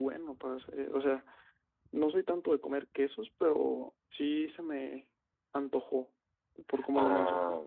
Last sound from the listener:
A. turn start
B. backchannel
A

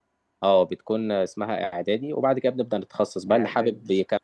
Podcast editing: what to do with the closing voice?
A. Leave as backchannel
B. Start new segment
A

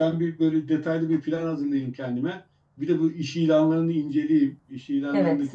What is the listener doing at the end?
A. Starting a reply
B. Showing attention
B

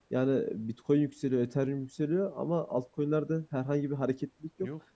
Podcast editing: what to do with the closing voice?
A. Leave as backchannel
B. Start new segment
A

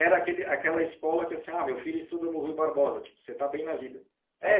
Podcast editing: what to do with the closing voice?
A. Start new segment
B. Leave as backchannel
A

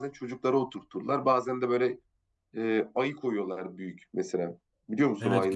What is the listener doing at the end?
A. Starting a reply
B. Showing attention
A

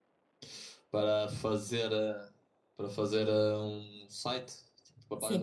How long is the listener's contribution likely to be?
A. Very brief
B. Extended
B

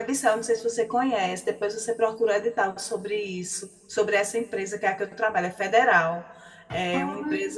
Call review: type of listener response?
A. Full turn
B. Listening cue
B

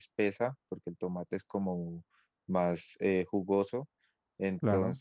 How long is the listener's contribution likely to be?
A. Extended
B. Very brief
B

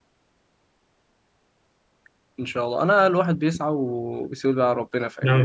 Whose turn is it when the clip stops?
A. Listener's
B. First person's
A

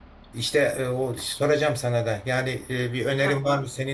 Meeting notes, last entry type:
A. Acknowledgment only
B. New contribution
A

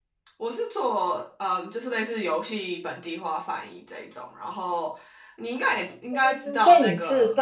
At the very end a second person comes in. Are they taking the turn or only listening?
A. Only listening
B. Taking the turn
B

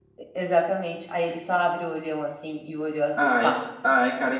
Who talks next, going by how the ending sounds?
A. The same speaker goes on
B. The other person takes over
B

